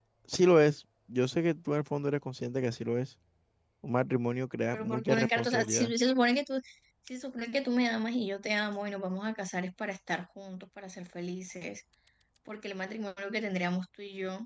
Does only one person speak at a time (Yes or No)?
No